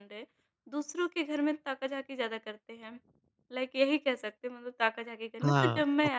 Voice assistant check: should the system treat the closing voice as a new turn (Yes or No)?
Yes